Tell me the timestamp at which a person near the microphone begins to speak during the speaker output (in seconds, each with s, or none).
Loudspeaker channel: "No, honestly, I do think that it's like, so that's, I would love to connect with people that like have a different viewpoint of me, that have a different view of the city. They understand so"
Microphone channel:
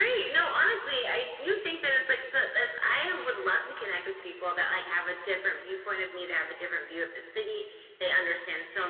none